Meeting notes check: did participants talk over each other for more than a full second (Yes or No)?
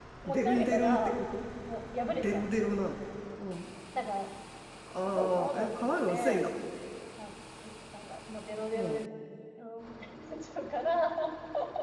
Yes